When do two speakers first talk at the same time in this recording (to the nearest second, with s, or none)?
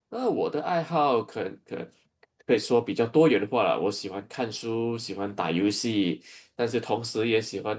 none